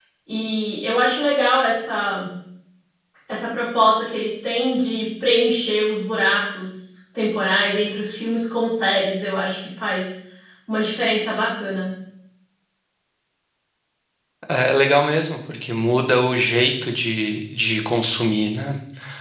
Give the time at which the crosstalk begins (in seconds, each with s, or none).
none